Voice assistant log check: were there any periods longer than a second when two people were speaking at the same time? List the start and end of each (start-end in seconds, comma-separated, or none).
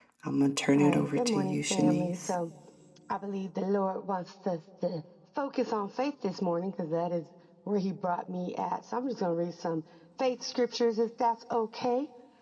0.8-2.3